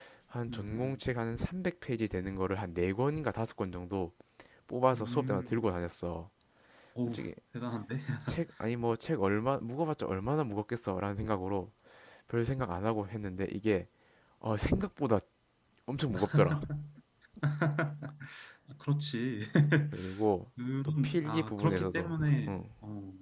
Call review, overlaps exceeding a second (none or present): present